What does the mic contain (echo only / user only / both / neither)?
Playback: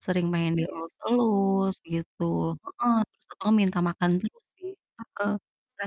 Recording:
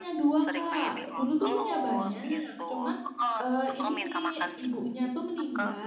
both